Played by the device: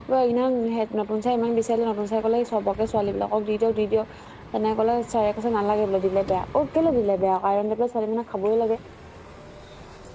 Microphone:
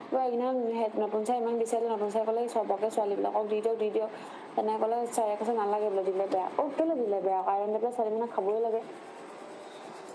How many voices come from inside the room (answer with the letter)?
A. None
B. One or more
A